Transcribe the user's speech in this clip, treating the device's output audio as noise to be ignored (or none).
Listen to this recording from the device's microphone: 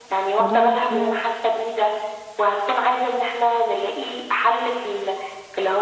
موضوع إن إحنا